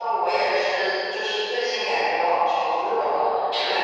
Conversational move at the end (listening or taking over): listening